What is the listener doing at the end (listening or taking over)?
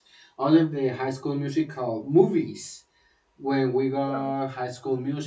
listening